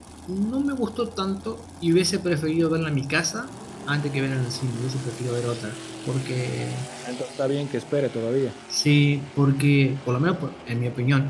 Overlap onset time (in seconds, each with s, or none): none